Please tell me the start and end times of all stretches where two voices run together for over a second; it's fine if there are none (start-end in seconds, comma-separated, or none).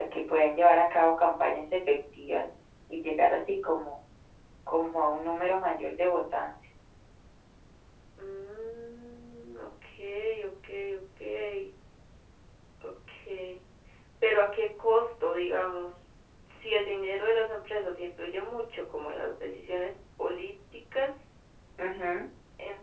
none